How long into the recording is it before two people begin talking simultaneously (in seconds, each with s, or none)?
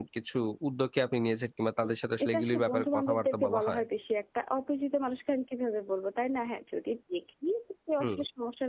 1.8 s